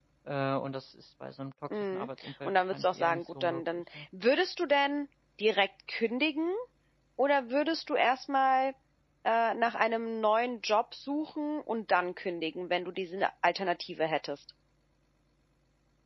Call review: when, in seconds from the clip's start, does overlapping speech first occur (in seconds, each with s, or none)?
1.7 s